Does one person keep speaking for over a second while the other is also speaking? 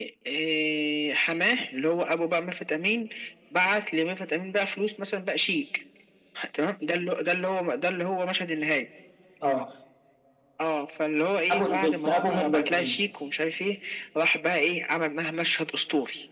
Yes, from 11.5 s

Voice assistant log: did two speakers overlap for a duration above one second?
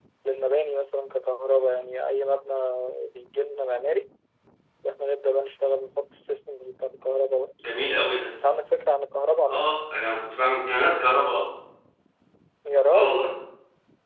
No

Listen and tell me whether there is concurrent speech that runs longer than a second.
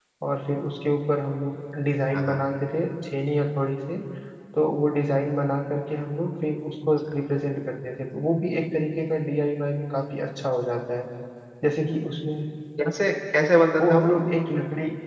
No

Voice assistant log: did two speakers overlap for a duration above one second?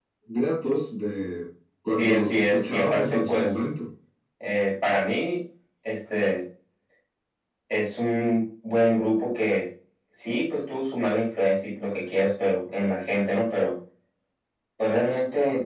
Yes, from 2.0 s

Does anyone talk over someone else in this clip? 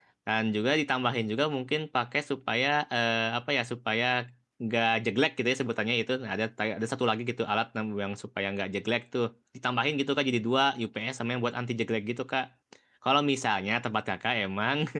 No

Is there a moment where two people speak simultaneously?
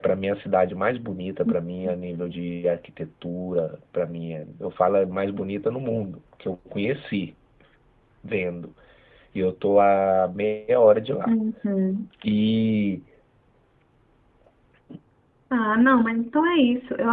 No

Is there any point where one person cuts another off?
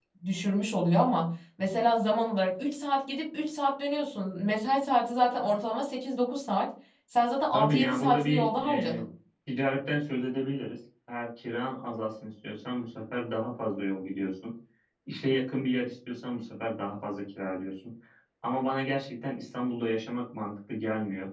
Yes, from 7.5 s

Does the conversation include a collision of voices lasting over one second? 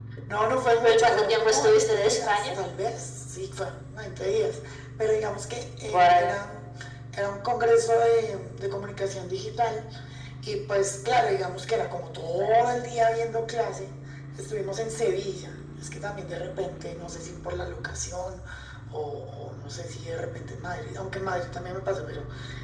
Yes, from 0.8 s

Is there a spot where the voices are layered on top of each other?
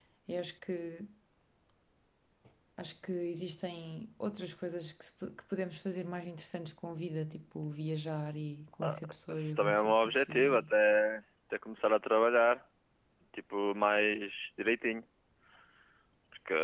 Yes, from 8.8 s

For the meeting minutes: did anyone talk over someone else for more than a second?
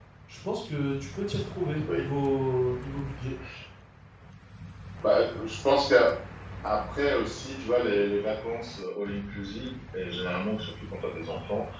No

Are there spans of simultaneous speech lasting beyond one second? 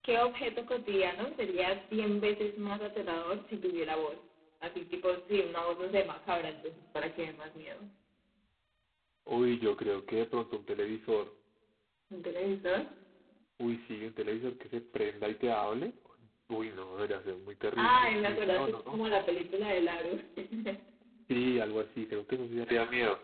Yes, from 17.8 s

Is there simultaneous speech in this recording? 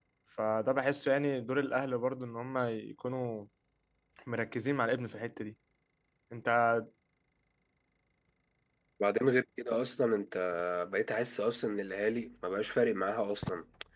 No

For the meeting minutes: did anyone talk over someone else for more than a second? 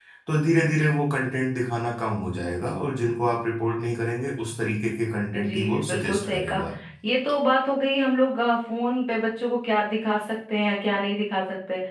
Yes, from 5.3 s

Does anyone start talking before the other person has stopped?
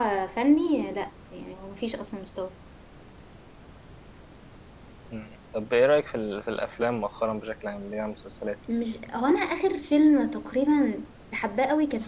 No

